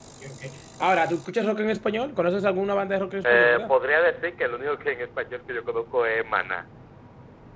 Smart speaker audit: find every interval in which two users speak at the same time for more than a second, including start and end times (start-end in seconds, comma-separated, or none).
none